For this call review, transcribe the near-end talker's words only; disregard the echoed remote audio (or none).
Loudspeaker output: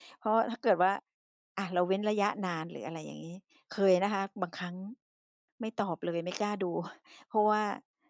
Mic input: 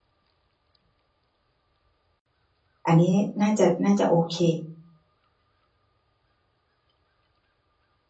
อันนี้น่าจะ น่าจะโอเค